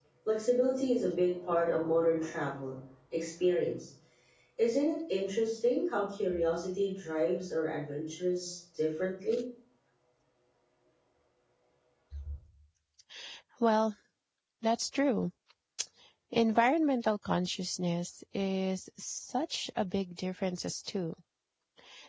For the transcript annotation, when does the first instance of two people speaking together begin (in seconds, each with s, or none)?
none